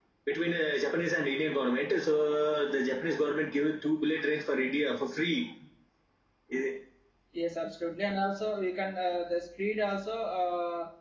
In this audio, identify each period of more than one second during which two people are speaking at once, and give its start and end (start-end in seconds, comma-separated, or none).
none